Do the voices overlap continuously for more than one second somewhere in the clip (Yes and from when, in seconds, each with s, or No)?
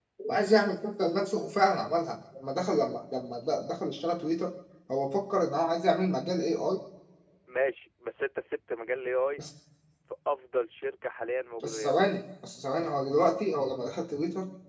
No